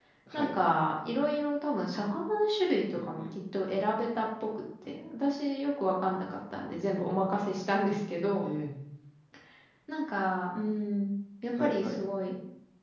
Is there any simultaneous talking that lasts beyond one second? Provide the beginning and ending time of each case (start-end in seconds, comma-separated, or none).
none